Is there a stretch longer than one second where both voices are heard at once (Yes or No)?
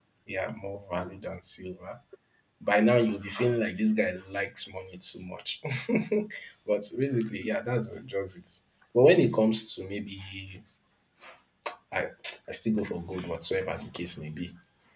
No